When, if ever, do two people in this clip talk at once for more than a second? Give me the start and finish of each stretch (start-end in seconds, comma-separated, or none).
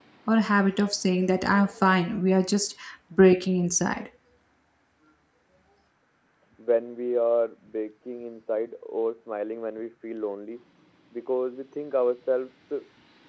none